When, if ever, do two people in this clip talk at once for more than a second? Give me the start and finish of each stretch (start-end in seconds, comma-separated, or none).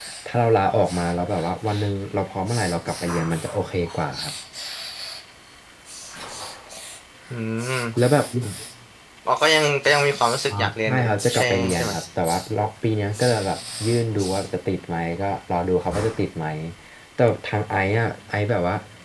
10.6-11.9